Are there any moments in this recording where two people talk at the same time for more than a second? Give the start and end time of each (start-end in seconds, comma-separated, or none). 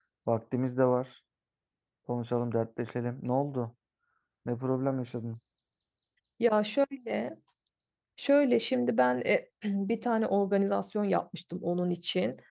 none